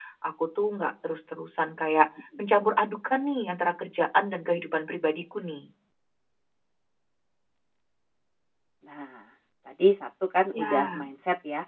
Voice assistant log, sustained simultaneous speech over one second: none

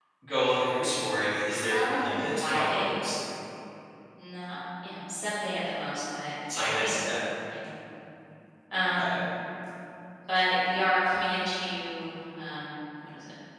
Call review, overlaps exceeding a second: present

